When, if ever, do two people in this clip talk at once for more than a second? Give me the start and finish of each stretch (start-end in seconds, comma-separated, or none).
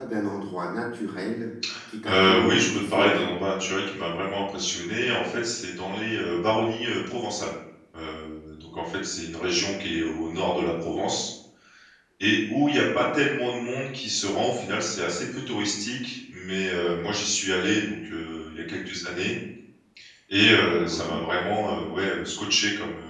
2.1-3.3